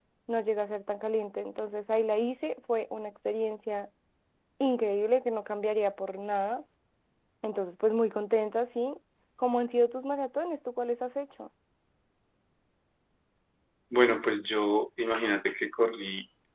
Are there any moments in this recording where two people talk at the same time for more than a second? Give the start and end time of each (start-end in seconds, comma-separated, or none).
none